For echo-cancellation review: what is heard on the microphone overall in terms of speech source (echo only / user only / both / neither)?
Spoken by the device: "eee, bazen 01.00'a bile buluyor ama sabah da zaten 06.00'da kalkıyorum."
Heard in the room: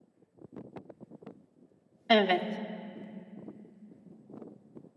user only